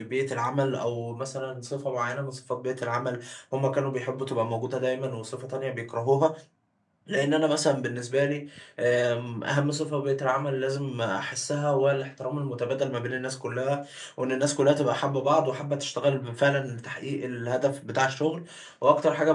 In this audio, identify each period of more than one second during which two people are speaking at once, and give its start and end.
none

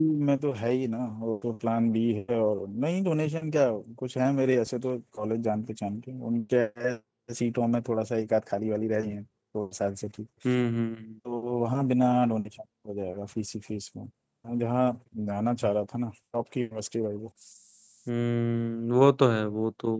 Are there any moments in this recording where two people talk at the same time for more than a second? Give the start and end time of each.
none

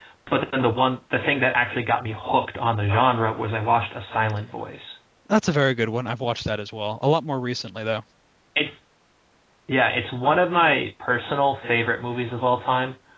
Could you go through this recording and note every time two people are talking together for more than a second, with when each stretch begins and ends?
none

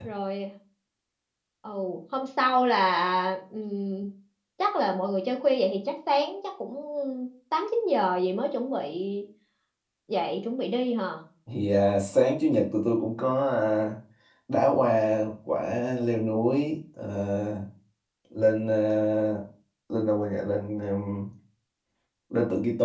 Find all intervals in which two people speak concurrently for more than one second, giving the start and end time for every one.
none

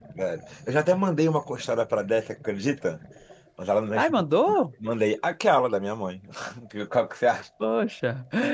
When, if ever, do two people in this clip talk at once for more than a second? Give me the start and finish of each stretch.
none

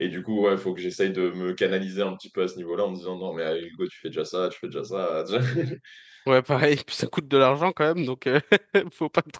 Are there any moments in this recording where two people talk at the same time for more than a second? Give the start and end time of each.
none

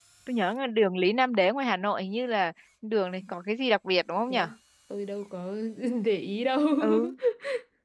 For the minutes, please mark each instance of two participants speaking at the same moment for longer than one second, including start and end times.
none

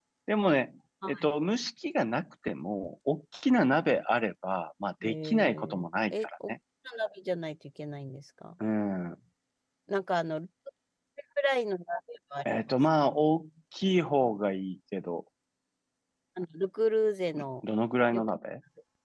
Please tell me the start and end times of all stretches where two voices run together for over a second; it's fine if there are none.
5.0-6.5

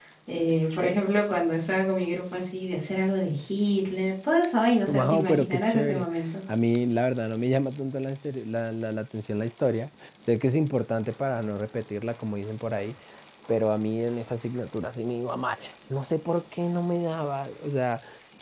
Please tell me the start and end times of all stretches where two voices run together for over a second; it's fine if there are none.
4.9-6.1

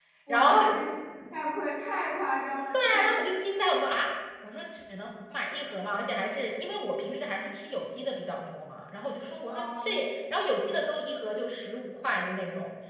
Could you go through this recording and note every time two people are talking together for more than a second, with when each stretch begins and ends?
none

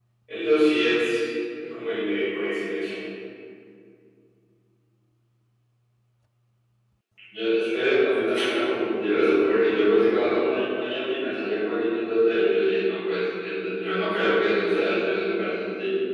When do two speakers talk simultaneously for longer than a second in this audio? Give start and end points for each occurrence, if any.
none

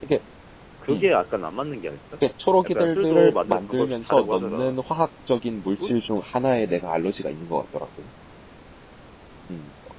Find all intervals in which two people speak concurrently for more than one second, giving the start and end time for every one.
2.6-4.8

